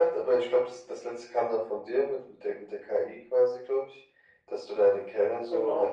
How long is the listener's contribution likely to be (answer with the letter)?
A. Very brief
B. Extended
A